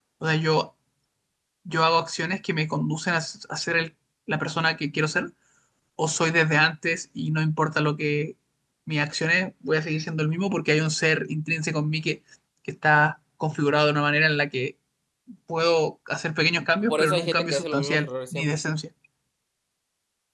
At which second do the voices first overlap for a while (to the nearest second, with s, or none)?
17 s